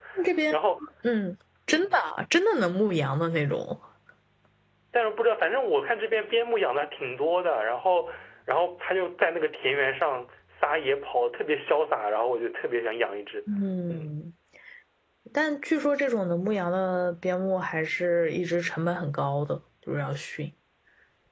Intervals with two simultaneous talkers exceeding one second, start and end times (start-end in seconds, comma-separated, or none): none